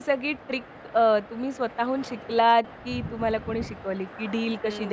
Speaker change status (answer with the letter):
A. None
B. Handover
A